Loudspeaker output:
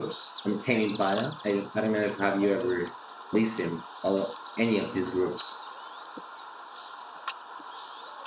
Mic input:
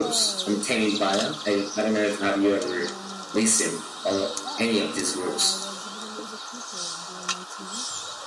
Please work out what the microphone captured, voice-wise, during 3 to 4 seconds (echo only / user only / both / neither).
both